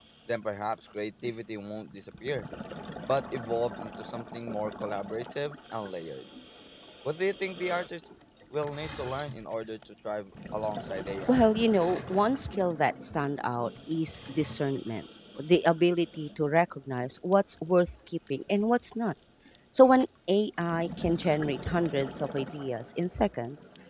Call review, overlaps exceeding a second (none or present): none